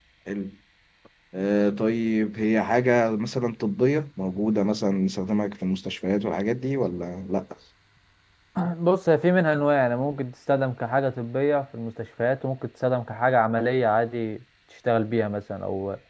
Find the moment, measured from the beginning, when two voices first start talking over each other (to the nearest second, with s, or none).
none